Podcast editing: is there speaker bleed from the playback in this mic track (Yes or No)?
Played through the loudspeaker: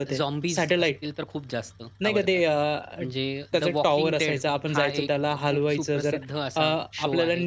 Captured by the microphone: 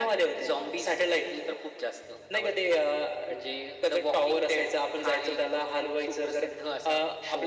Yes